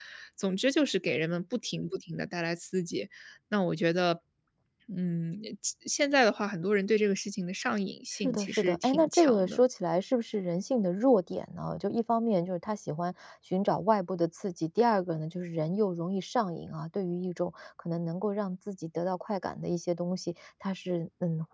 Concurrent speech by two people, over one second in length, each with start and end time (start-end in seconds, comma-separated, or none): 8.2-9.6